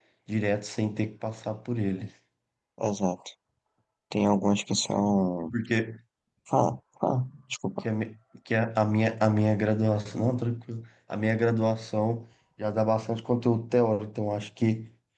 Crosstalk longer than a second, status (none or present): none